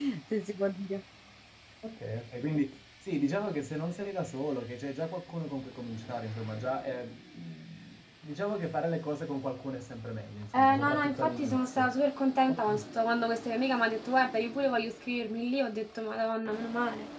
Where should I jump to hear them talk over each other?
10.6 s

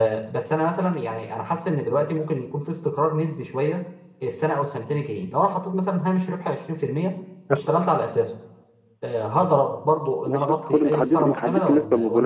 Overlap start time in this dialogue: 10.2 s

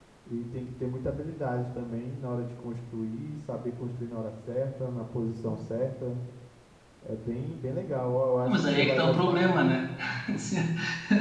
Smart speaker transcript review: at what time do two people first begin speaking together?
8.4 s

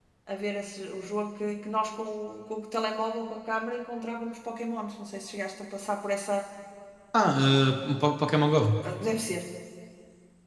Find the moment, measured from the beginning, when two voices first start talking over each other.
none

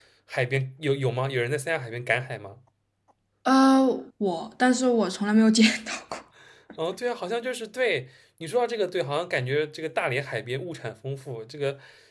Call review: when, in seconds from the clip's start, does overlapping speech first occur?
none

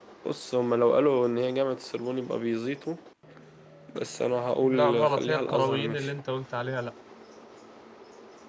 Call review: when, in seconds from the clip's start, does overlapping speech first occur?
4.6 s

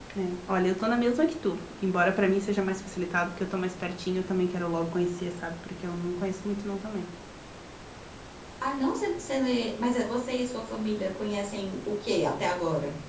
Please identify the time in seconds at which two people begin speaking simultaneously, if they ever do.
none

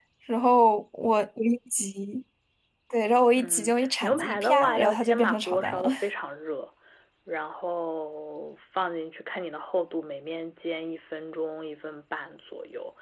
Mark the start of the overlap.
3.4 s

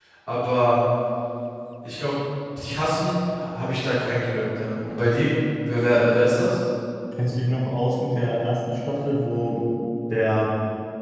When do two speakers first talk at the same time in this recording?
none

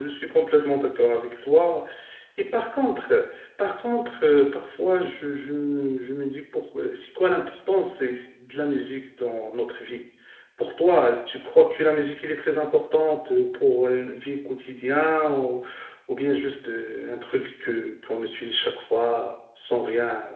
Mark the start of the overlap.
none

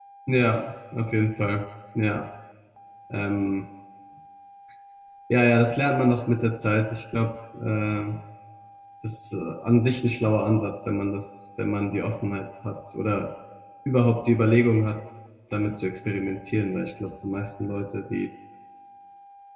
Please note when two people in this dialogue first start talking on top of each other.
none

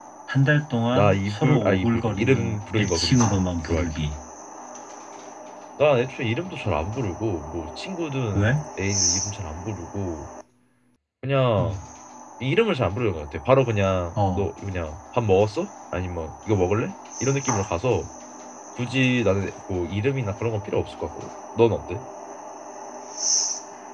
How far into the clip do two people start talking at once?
0.9 s

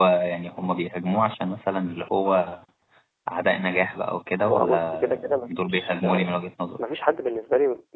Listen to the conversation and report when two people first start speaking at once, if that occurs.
4.4 s

